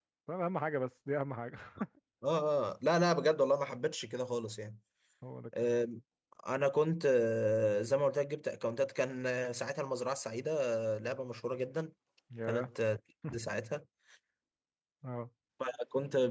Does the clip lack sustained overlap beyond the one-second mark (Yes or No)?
Yes